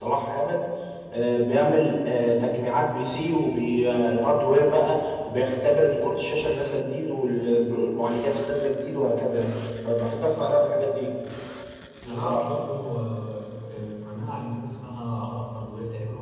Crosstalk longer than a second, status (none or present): none